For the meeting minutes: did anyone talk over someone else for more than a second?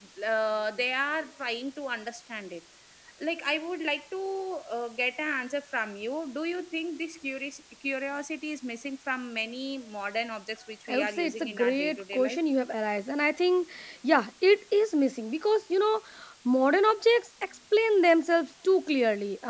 Yes, from 10.9 s

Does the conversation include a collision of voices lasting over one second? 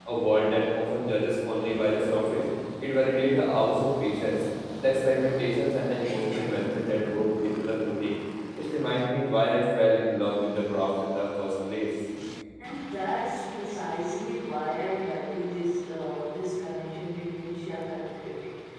No

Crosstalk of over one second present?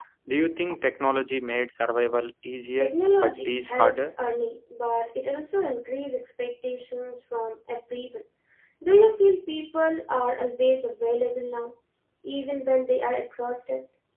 Yes, from 2.8 s

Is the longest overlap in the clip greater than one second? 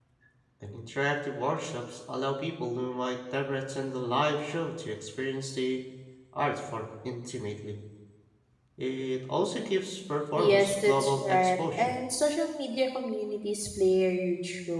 Yes, from 10.4 s

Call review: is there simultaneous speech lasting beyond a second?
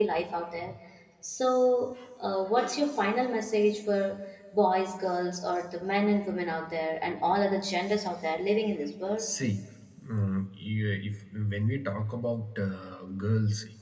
No

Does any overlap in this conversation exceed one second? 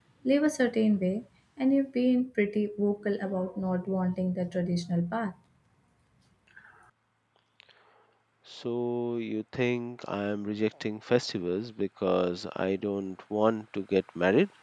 No

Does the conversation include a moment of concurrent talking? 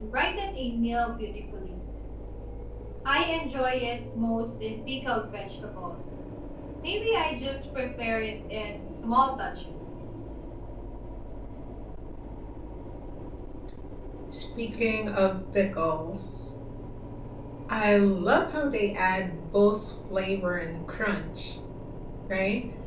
No

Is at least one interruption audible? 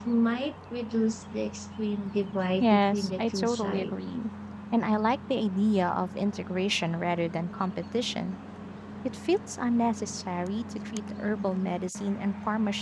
Yes, from 2.6 s

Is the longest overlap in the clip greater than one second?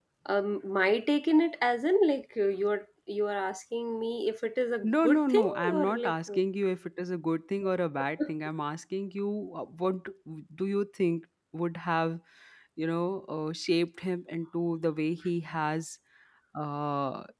Yes, from 4.8 s

